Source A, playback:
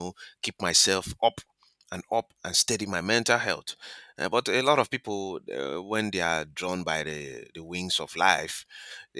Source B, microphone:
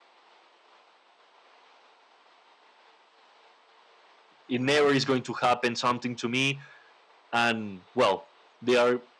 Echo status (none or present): none